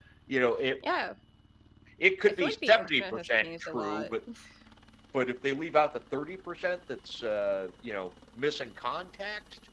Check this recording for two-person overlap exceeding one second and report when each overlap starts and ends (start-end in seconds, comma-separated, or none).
2.3-4.1